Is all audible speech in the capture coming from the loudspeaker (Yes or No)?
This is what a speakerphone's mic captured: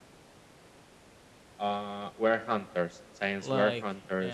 No